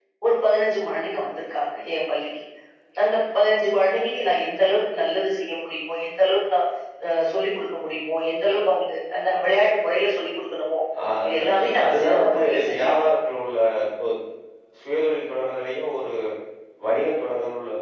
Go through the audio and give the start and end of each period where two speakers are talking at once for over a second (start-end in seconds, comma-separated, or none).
11.3-13.2